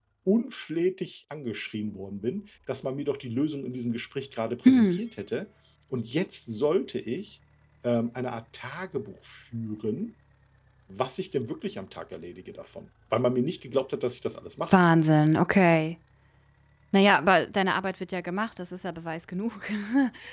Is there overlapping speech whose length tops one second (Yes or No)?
No